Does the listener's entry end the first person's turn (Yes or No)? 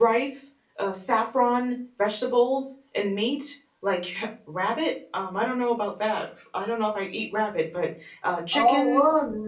Yes